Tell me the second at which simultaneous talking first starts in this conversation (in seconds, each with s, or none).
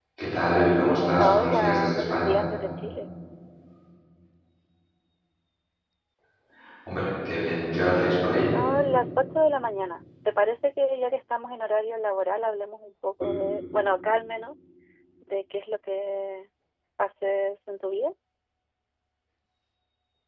1.2 s